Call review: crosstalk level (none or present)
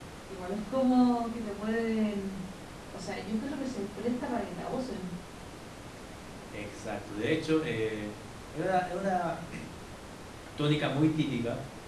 none